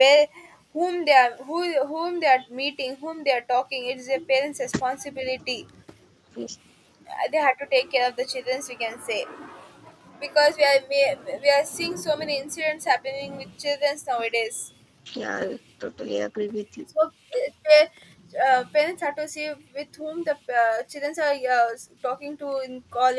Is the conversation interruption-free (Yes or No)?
Yes